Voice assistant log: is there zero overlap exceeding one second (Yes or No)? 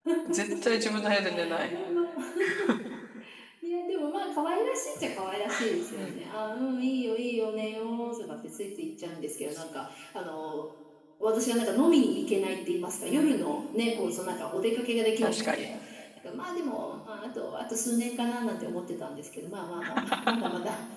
Yes